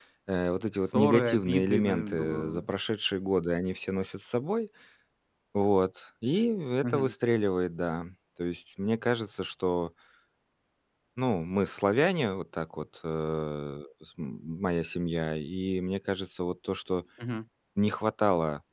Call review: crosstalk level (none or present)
present